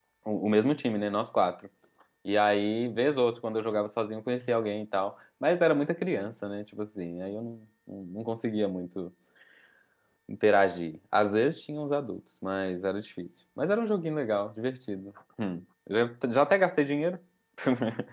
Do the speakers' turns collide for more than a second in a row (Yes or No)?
No